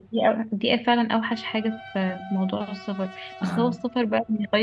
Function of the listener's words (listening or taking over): listening